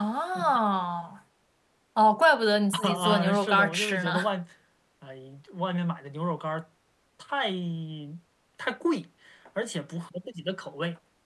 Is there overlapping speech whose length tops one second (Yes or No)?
Yes